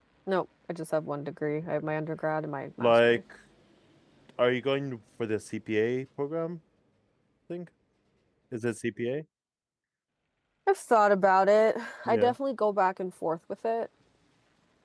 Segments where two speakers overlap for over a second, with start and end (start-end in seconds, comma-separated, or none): none